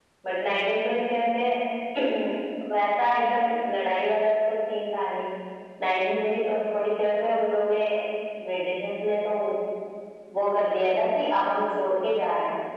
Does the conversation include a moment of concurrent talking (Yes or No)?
No